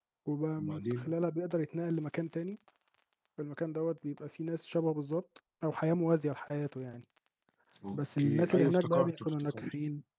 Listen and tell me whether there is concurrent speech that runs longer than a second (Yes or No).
Yes